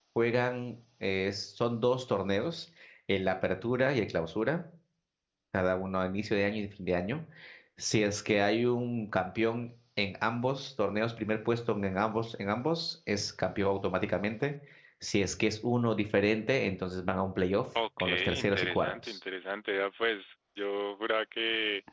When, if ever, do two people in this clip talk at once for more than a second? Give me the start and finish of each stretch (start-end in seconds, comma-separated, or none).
18.0-19.2